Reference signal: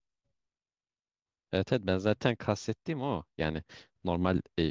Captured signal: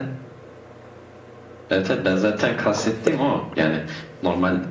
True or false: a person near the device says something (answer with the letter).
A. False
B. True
A